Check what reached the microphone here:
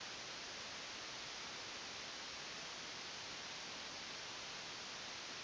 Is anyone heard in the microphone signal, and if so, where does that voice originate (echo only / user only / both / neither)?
neither